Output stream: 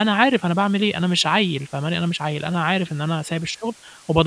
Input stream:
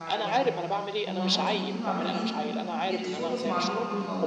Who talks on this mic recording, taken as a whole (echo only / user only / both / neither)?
both